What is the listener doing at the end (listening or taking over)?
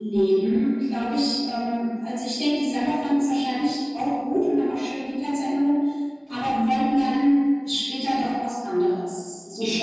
taking over